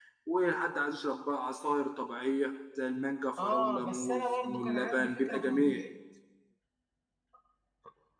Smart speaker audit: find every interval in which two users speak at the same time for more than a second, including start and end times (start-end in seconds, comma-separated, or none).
3.4-5.8